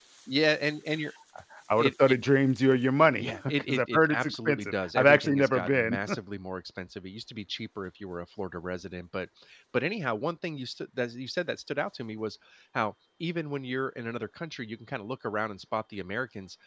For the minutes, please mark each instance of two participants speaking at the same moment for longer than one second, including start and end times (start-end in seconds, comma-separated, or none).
3.2-6.0